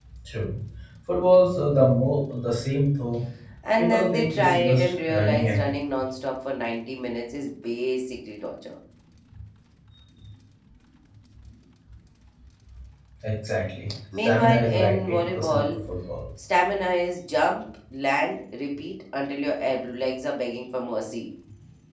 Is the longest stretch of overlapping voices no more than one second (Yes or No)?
No